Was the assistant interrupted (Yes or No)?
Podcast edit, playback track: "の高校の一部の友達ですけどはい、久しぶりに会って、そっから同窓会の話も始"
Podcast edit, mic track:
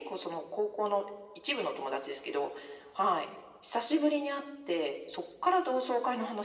No